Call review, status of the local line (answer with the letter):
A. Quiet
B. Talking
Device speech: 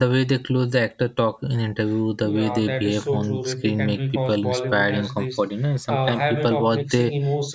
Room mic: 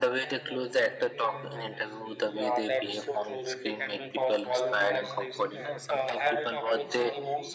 B